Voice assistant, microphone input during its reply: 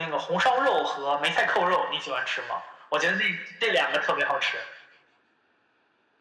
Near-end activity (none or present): none